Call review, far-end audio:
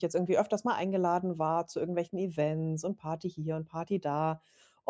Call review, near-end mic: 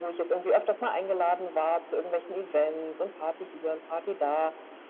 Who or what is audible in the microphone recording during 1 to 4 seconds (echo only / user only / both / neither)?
echo only